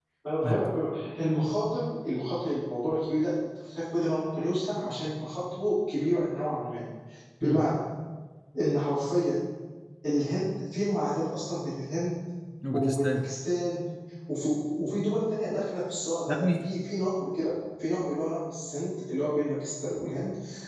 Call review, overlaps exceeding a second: none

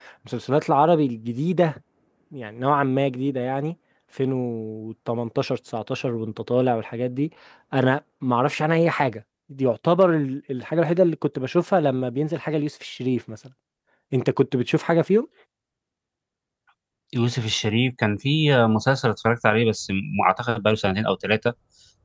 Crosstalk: none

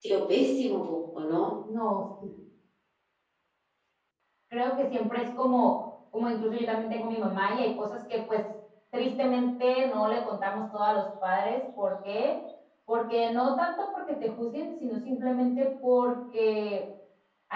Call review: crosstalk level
none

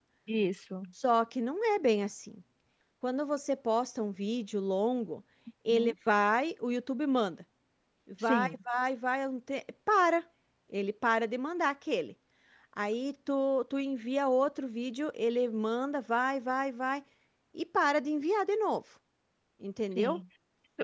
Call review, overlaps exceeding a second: none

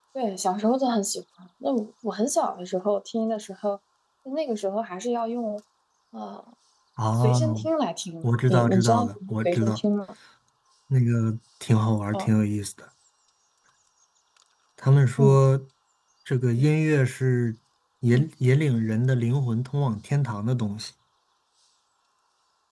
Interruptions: present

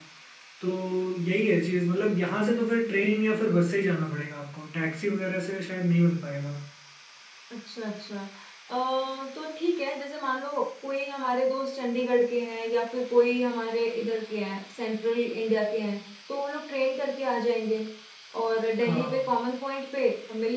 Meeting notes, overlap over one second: none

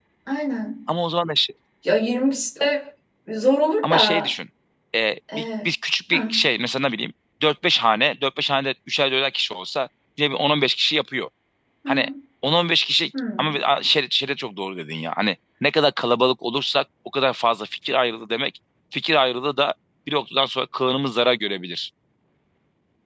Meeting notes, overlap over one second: none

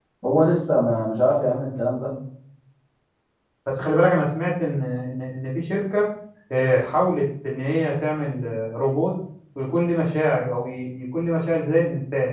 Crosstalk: none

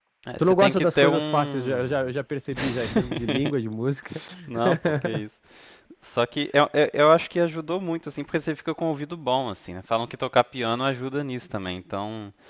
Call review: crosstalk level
present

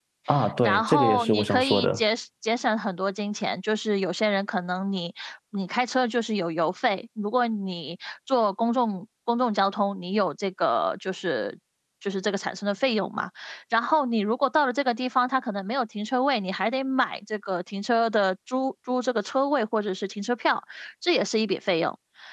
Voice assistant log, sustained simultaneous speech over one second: present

